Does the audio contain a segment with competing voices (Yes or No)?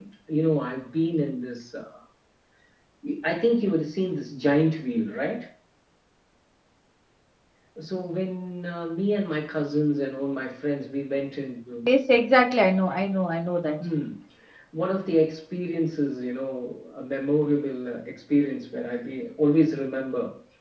No